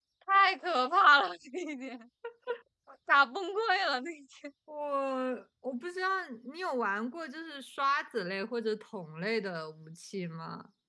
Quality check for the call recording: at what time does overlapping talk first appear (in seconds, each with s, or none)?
none